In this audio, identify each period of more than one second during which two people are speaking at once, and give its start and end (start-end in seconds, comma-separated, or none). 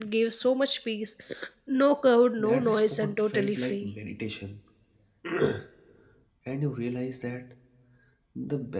2.4-3.9